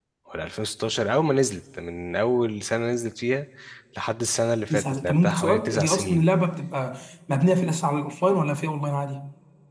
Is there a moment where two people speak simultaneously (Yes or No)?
Yes